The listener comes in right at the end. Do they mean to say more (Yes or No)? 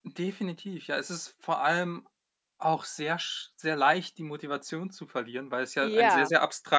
No